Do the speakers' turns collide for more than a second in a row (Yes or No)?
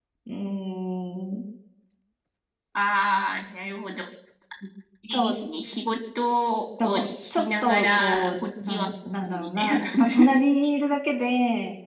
Yes